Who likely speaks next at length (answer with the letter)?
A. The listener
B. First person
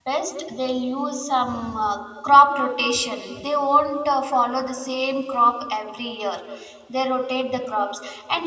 B